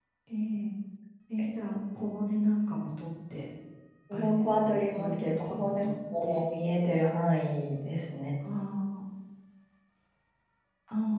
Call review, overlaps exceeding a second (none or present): present